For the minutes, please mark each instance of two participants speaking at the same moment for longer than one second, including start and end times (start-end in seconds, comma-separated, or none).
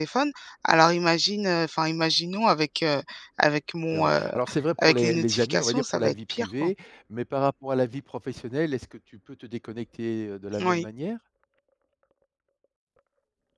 4.8-6.7